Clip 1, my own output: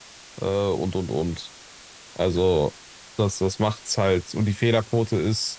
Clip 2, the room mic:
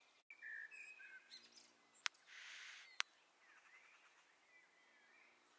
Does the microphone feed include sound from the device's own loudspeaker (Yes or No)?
No